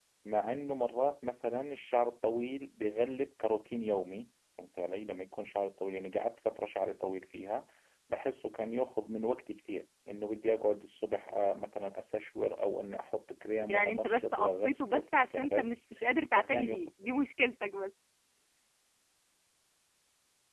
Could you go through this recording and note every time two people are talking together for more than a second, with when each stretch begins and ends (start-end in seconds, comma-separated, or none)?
13.7-15.7